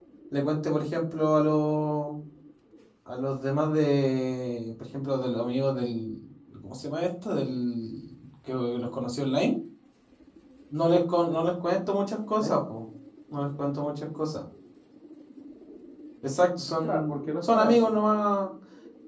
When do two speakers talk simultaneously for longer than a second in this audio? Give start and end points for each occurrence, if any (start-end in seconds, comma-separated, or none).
16.8-18.0